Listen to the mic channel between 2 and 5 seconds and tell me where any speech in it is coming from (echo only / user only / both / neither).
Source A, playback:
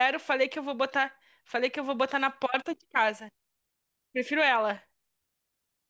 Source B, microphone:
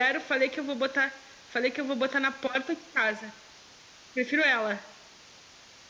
echo only